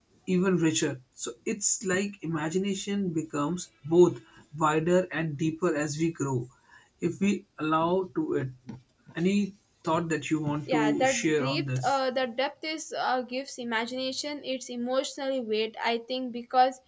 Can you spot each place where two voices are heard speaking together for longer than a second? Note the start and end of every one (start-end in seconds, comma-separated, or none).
10.7-12.0